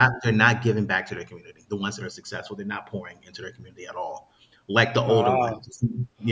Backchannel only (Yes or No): Yes